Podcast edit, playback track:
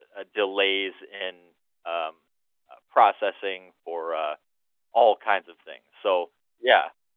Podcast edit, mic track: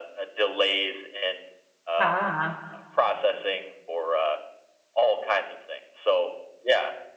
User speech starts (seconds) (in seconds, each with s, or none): 2.0 s